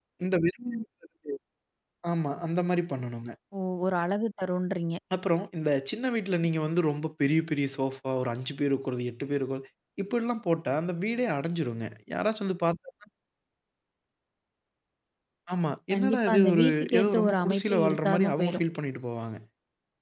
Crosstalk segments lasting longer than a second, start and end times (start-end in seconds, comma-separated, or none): 15.9-18.6